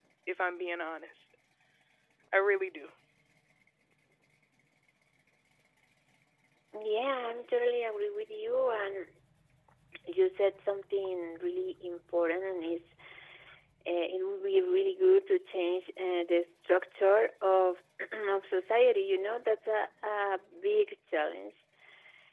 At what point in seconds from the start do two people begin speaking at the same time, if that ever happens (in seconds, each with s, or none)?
none